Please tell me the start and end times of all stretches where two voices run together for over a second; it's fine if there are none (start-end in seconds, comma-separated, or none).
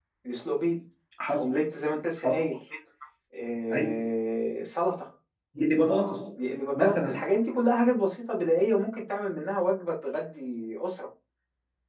none